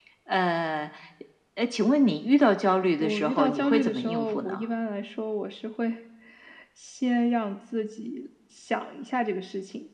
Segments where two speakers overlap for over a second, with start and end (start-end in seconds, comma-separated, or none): 3.0-4.7